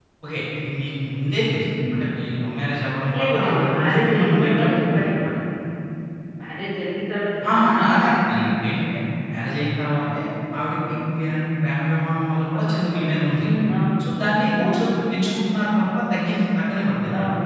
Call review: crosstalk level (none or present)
present